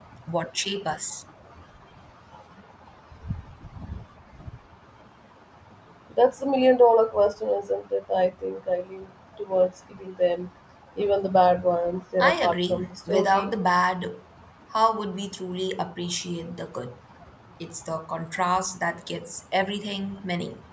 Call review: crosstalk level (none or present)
present